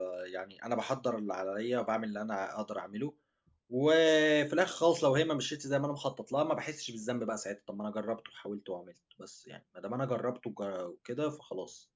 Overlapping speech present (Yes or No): No